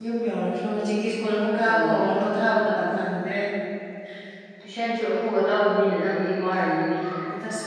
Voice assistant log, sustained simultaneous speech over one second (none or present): none